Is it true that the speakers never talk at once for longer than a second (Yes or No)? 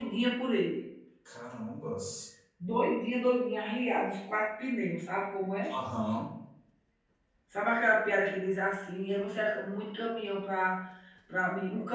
Yes